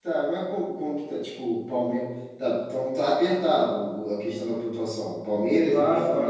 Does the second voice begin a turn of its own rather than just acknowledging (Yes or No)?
Yes